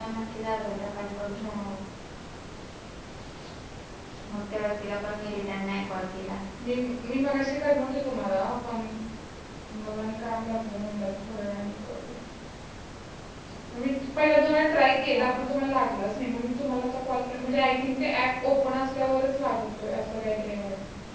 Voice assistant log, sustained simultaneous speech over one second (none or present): none